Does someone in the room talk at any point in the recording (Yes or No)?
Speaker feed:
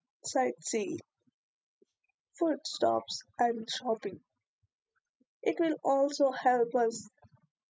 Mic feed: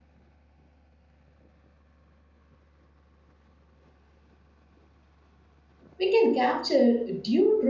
Yes